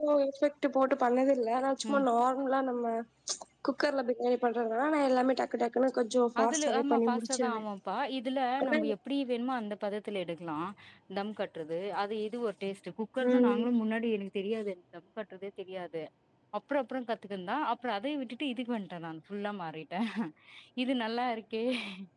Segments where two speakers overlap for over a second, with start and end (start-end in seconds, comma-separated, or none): 6.4-7.6